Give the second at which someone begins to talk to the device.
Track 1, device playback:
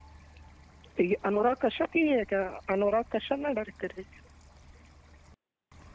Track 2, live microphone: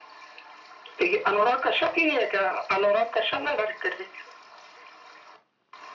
none

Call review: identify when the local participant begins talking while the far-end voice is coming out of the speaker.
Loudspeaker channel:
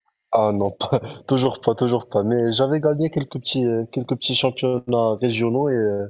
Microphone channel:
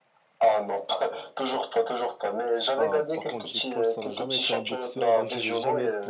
2.7 s

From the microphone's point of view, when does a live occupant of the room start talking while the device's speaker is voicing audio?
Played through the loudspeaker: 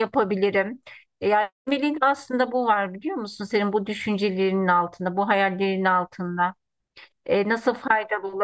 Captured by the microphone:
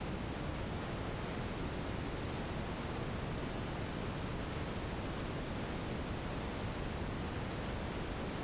none

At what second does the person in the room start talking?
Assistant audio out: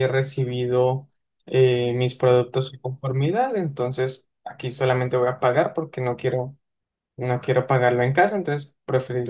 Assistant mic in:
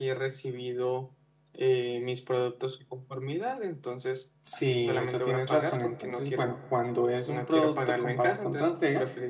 4.4 s

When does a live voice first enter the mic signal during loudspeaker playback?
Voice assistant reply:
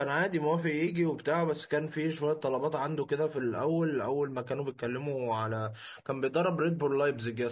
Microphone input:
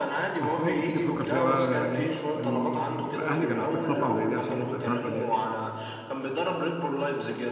0.4 s

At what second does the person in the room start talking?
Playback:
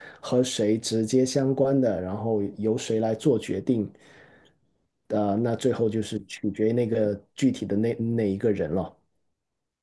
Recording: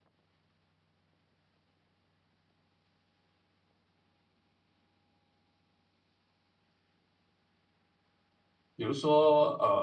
8.8 s

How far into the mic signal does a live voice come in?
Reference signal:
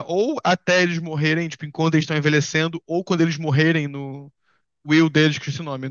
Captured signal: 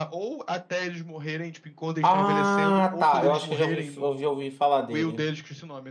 2.0 s

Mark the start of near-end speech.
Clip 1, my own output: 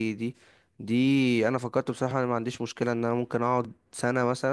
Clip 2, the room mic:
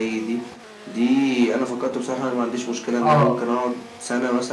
3.0 s

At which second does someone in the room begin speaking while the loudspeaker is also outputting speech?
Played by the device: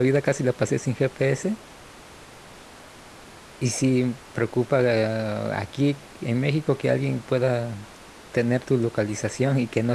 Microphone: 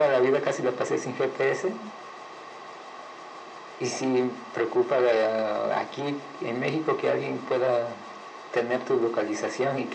none

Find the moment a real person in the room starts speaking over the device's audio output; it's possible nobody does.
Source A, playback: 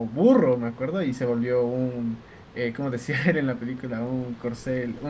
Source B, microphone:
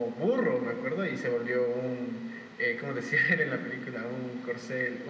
none

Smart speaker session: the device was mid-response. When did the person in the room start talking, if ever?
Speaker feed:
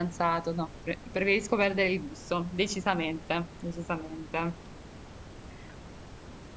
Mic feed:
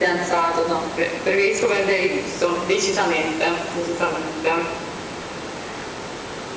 none

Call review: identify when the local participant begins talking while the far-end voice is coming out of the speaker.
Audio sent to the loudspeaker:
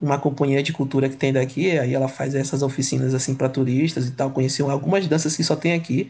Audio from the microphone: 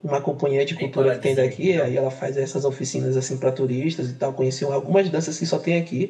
0.7 s

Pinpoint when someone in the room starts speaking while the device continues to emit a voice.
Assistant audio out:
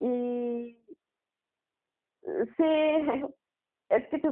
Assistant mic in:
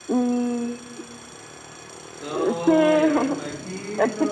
2.2 s

